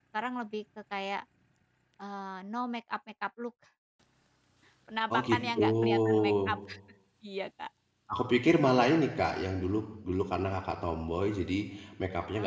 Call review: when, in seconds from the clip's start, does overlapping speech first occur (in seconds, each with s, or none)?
5.1 s